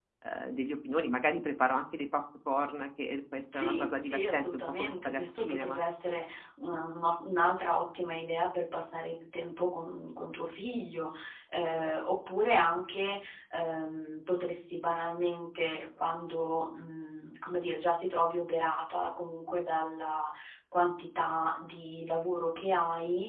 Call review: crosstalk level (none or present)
present